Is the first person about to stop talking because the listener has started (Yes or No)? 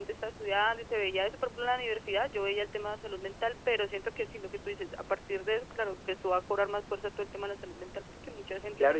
Yes